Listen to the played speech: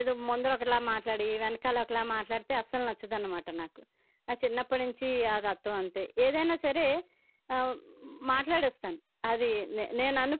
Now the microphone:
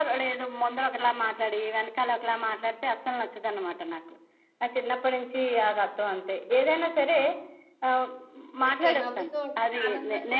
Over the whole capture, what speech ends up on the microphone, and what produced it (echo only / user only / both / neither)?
both